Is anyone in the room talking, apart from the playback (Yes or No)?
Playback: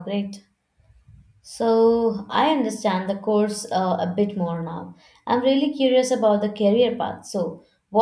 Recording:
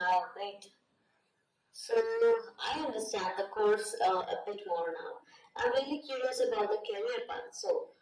No